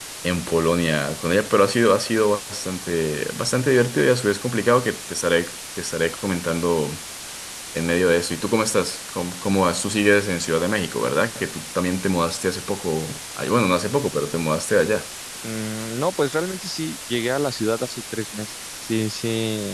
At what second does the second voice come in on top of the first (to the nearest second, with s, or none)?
none